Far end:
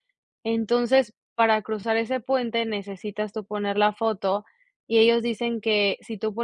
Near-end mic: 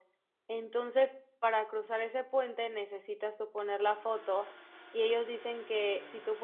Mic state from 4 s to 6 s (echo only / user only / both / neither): both